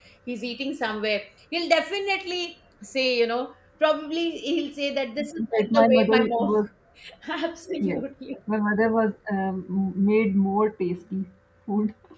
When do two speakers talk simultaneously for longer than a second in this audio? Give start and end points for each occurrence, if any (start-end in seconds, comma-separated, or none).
5.4-6.6